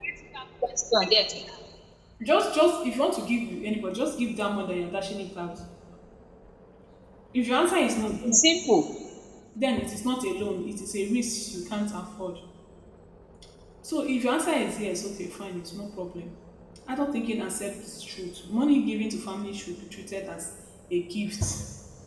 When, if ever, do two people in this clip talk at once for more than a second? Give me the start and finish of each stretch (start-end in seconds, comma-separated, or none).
none